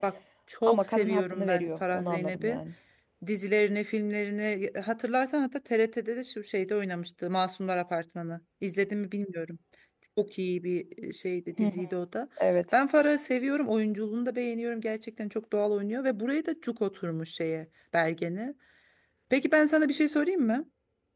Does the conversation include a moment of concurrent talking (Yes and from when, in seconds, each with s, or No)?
Yes, from 0.6 s